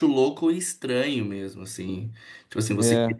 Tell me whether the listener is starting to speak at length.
No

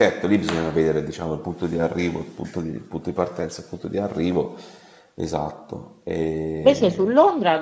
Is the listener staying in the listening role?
No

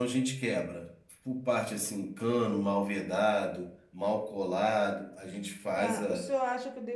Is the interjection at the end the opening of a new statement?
Yes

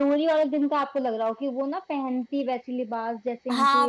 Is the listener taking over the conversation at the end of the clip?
Yes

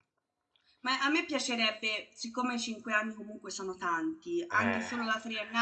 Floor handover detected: No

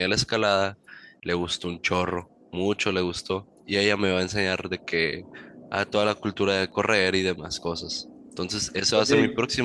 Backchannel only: Yes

